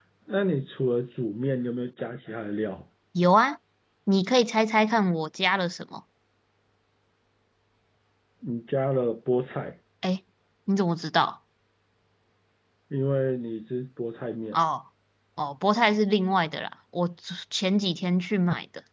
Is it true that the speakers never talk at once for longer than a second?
Yes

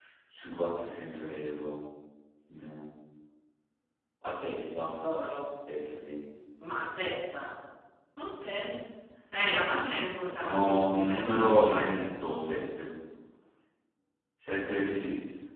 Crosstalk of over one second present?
Yes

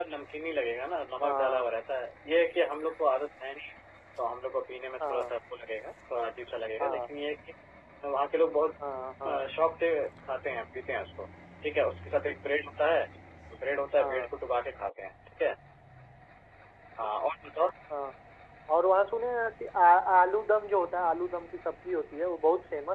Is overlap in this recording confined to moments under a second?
Yes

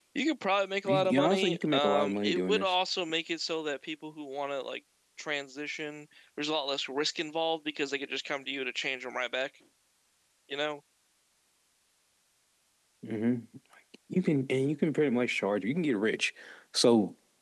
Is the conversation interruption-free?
No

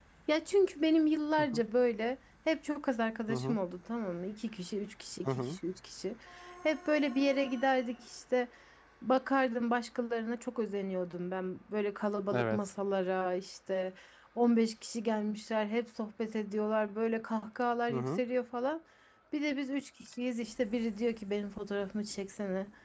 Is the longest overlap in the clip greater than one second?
No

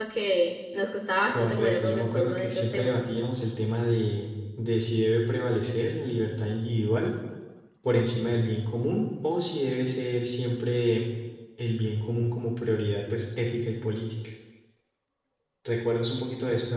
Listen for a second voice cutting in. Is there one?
Yes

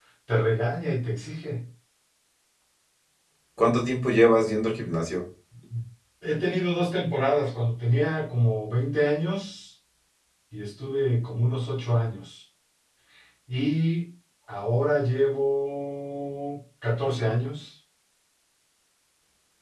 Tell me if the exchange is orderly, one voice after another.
Yes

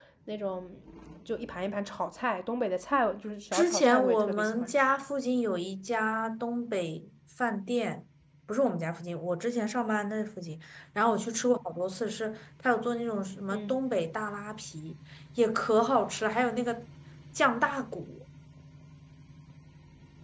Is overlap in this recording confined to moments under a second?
No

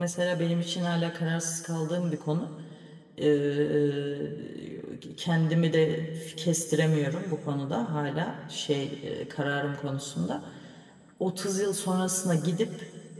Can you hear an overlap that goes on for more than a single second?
No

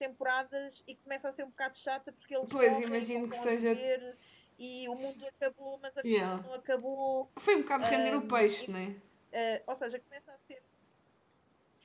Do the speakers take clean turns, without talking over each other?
No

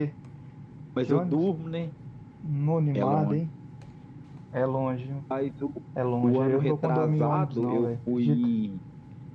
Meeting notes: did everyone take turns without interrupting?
No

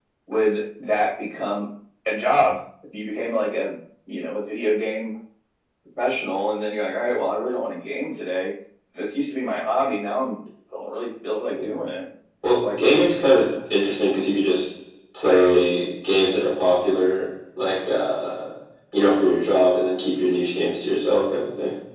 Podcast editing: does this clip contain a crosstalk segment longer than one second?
No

